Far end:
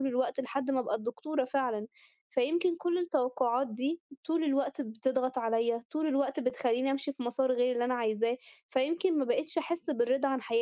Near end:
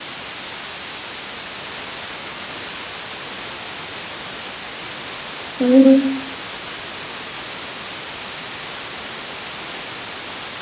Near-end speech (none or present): present